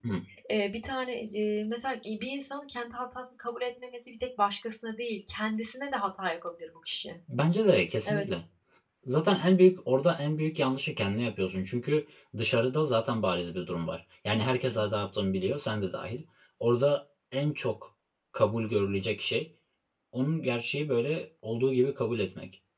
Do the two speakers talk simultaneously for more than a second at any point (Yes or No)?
No